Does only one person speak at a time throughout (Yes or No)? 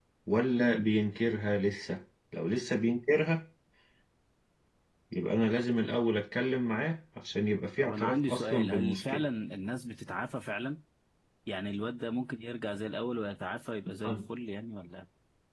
No